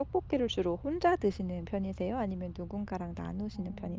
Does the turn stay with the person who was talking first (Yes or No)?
No